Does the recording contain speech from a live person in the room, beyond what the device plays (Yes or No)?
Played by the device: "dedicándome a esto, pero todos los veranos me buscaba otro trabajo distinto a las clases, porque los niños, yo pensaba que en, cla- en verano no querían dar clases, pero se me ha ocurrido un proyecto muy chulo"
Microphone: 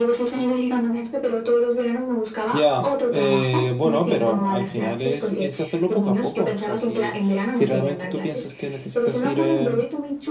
Yes